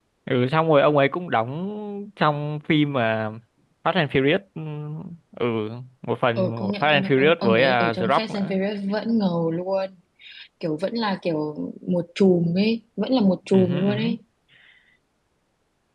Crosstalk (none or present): present